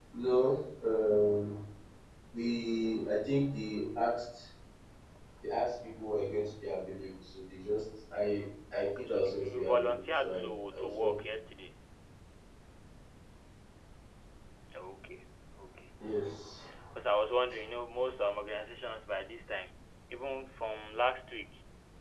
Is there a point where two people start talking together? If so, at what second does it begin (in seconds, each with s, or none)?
8.8 s